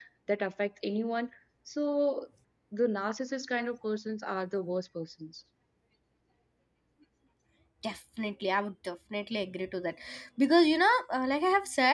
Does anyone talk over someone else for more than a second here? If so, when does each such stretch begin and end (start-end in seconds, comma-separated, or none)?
none